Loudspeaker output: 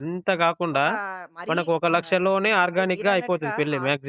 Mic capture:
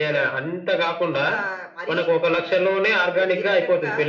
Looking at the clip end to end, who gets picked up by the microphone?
echo only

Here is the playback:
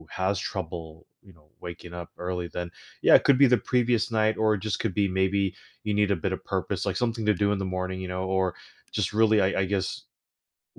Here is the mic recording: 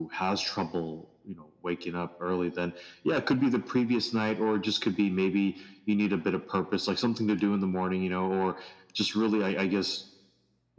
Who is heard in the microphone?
echo only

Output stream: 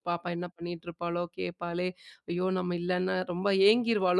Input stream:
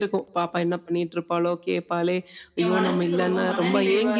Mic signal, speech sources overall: both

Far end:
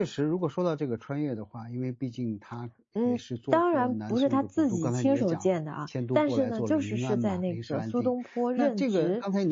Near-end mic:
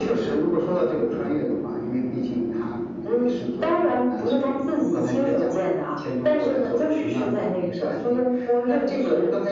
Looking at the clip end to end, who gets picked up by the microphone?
echo only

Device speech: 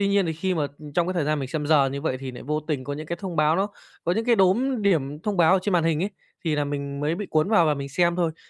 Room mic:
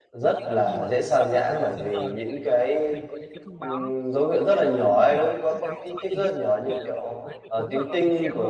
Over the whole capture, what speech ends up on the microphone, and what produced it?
both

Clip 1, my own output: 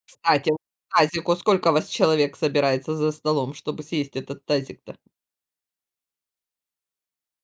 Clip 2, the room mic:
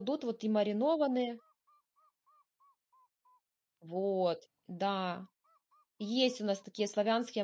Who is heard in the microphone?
user only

